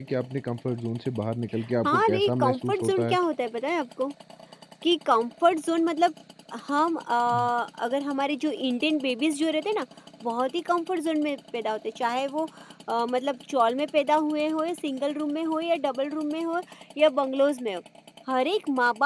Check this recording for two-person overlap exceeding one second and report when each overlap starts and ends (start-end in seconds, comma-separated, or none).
1.8-3.2